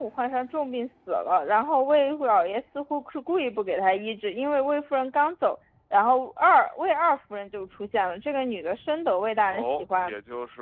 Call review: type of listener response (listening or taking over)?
taking over